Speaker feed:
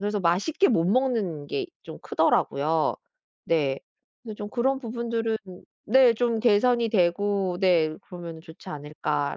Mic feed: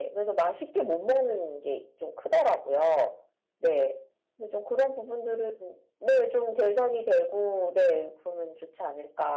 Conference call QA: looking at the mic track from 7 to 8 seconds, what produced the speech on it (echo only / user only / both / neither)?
echo only